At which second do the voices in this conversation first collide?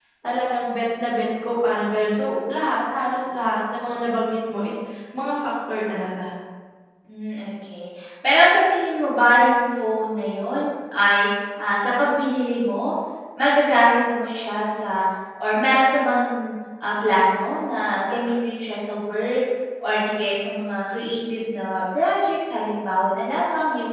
none

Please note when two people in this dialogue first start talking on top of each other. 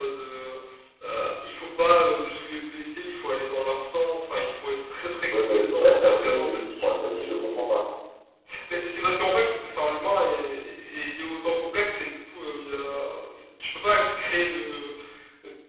5.3 s

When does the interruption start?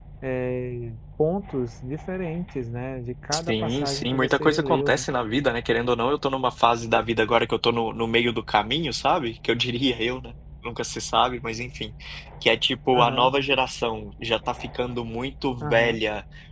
3.3 s

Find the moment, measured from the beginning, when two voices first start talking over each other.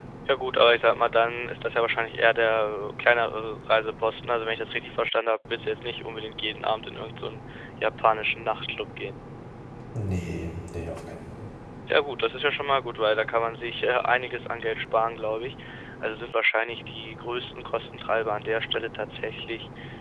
none

